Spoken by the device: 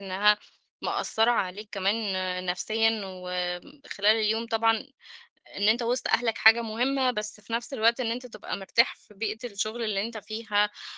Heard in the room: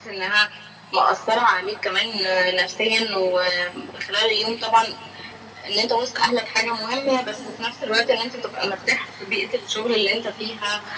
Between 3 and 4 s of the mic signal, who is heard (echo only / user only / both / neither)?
echo only